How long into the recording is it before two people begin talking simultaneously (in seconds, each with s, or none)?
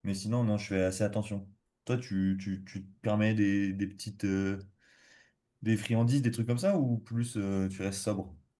none